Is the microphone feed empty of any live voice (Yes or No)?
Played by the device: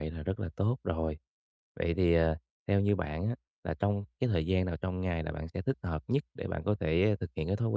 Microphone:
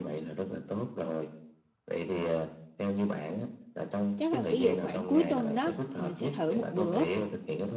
No